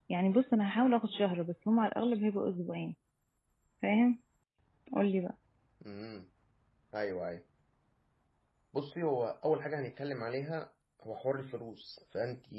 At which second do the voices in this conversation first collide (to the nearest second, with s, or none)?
none